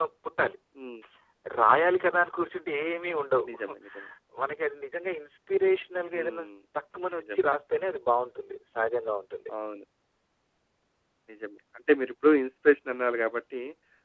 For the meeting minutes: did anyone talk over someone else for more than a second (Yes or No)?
No